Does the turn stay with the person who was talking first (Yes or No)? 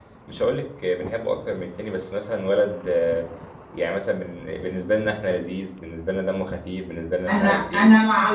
No